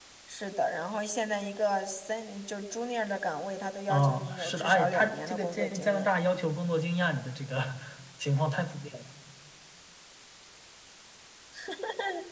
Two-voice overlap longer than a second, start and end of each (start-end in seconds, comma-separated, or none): 3.9-6.1